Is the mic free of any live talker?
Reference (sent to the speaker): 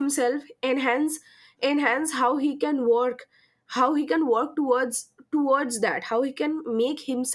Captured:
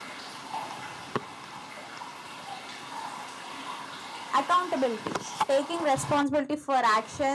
No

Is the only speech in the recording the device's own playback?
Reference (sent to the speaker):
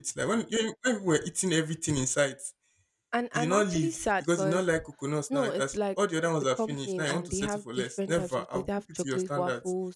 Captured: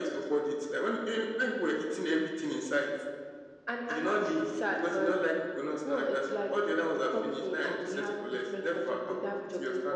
Yes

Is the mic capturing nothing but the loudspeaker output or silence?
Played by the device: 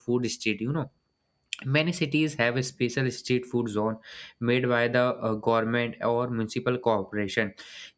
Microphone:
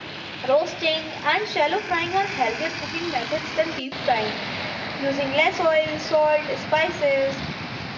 No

